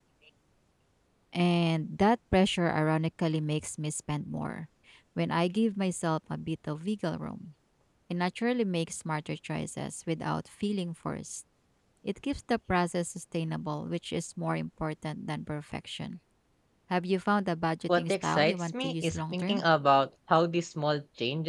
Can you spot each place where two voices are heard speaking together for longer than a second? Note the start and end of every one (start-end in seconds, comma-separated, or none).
17.9-19.6